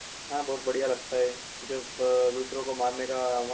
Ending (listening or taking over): listening